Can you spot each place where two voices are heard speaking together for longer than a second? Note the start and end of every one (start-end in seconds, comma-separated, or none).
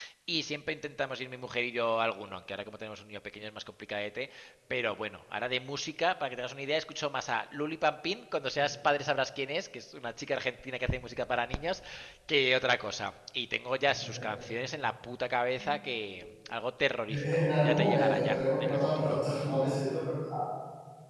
17.1-19.2